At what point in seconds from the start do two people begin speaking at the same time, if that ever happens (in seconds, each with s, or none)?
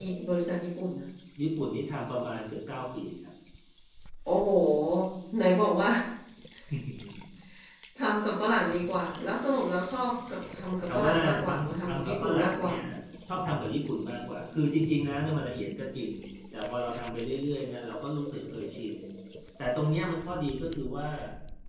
10.9 s